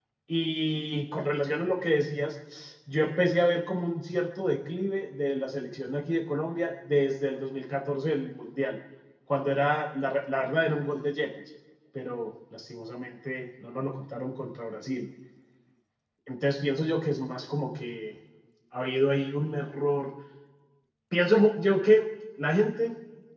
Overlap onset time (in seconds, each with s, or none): none